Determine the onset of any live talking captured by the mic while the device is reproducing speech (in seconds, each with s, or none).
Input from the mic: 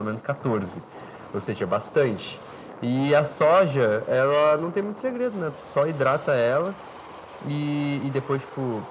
none